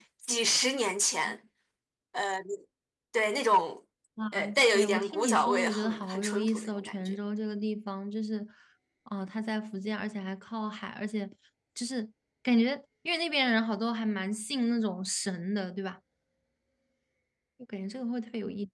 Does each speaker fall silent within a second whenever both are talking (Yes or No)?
No